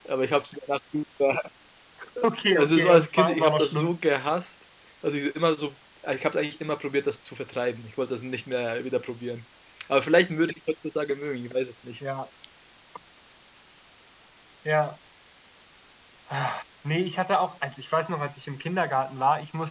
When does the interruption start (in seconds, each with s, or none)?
2.6 s